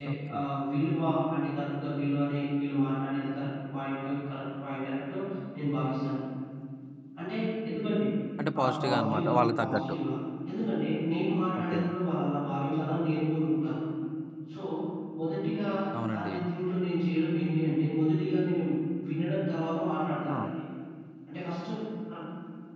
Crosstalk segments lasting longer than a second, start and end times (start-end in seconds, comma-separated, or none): 8.6-10.0